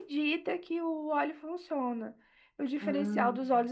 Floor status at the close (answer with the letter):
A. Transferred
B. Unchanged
B